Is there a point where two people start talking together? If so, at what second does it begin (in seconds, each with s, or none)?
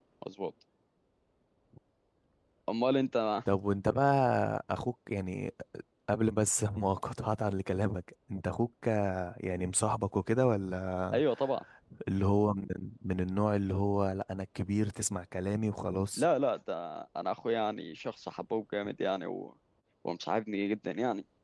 none